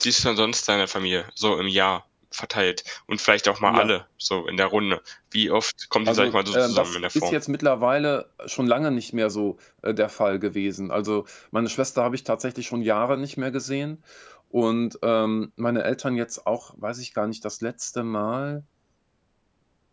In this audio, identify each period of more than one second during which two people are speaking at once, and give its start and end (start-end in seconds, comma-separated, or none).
6.1-7.3